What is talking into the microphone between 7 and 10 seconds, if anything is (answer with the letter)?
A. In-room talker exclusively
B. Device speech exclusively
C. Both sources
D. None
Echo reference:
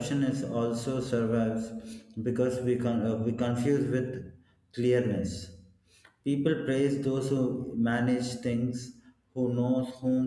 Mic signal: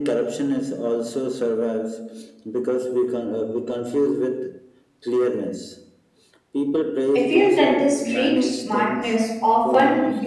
C